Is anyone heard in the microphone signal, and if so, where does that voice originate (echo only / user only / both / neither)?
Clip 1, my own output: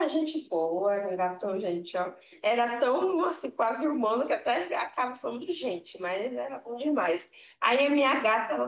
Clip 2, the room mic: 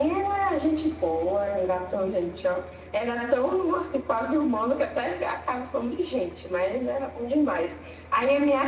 echo only